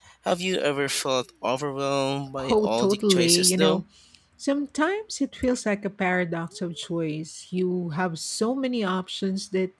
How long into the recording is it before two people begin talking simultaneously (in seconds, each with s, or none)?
2.4 s